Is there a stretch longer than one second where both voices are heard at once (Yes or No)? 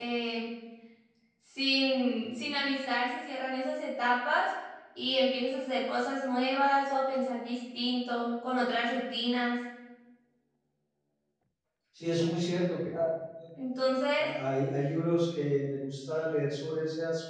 No